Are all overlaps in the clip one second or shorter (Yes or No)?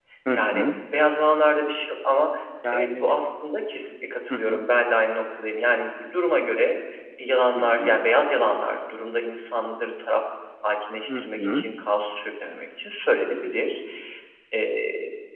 Yes